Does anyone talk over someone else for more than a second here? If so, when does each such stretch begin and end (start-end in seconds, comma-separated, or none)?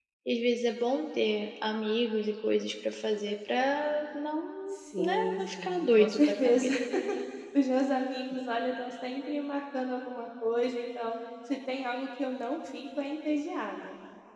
4.7-6.7